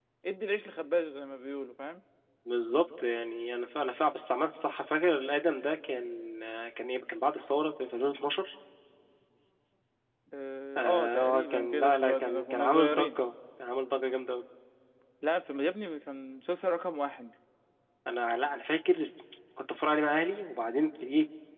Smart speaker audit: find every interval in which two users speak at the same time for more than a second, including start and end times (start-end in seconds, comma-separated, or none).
10.8-13.1